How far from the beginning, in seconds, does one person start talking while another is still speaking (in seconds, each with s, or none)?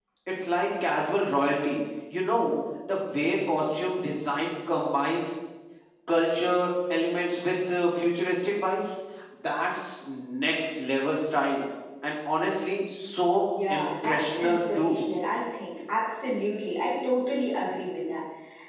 13.7 s